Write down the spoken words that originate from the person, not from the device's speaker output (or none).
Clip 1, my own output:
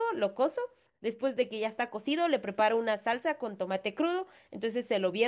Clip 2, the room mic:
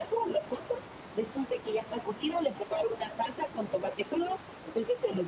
none